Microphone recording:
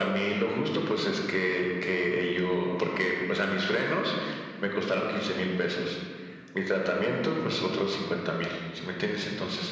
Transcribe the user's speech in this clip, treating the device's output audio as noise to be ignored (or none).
none